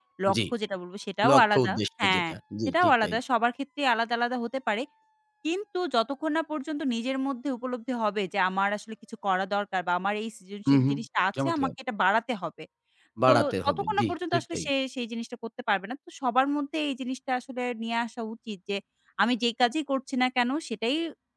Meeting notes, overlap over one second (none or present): present